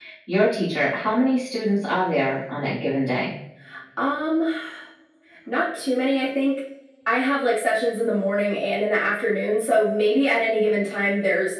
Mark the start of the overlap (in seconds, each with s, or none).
none